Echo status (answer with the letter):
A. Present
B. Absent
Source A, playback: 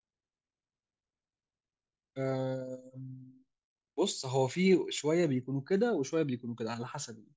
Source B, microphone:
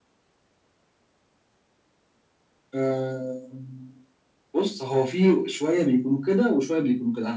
A